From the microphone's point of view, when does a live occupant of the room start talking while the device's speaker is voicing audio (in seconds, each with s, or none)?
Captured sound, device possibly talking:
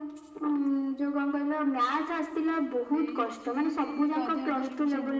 2.9 s